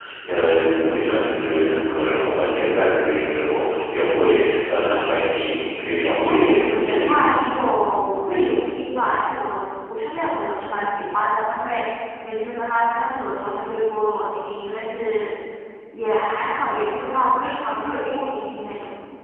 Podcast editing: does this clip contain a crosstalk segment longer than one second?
Yes, from 6.2 s

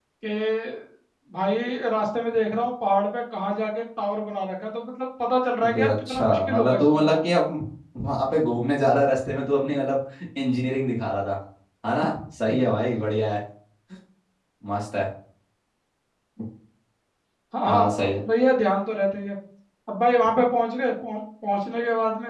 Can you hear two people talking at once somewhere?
Yes, from 5.6 s

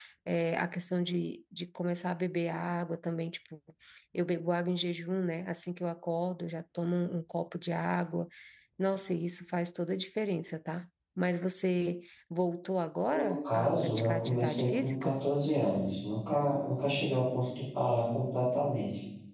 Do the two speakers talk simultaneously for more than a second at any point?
Yes, from 13.1 s

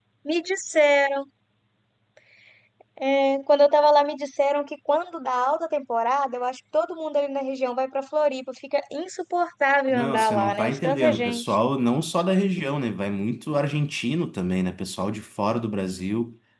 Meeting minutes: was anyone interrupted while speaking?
Yes, from 9.9 s

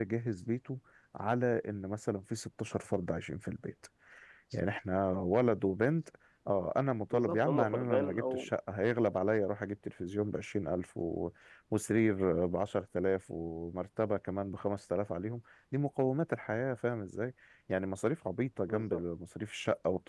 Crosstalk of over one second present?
Yes, from 7.1 s

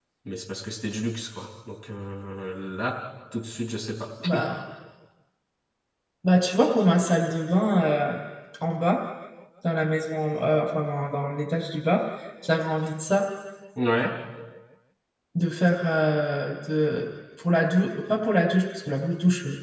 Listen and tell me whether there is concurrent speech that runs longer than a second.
No

